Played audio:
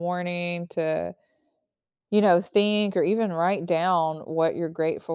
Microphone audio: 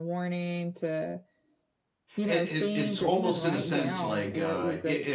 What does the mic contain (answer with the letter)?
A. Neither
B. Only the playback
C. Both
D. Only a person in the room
C